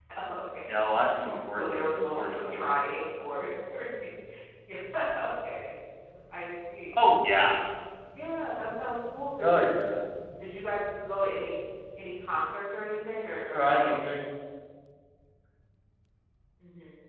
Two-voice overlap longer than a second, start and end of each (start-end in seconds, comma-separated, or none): 1.6-2.8